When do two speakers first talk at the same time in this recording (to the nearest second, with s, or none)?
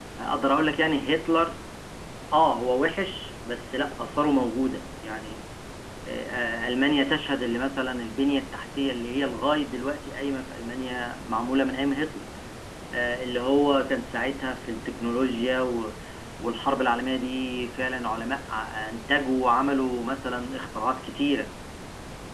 none